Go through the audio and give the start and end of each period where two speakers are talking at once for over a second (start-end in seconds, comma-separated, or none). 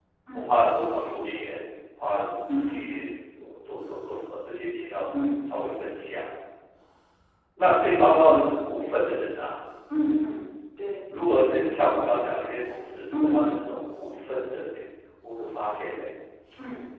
none